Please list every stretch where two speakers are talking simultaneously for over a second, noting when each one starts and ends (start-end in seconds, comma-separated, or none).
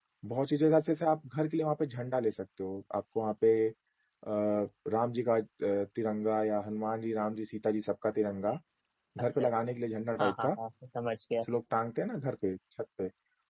none